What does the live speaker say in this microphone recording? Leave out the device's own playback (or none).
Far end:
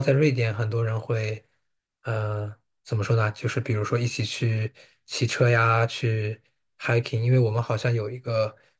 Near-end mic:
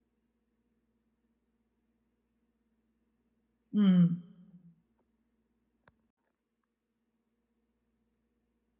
嗯